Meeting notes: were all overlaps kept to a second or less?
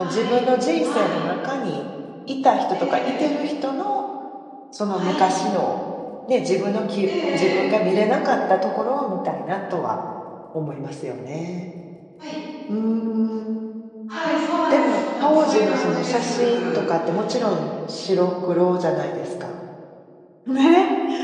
No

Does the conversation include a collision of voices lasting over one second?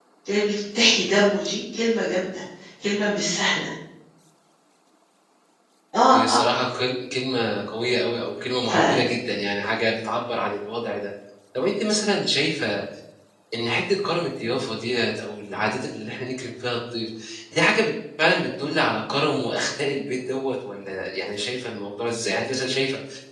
No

